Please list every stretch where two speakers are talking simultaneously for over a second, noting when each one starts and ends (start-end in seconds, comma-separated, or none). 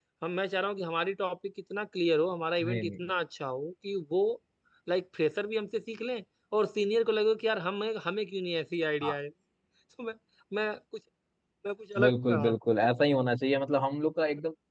none